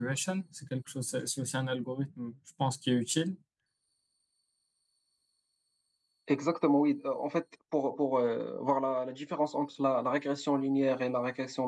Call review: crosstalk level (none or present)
none